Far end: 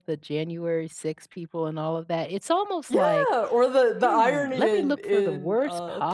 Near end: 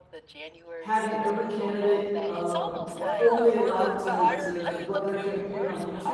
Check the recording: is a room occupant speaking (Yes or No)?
Yes